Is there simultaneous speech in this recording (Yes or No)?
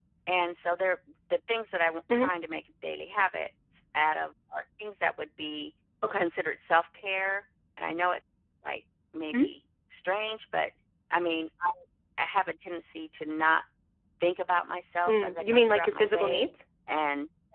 Yes